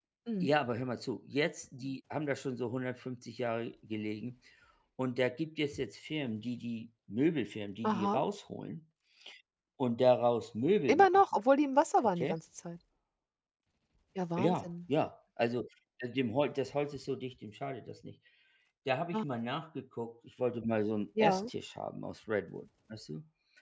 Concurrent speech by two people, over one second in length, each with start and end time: none

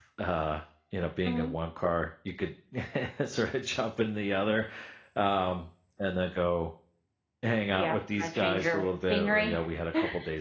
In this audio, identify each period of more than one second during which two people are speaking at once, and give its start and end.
7.7-9.6

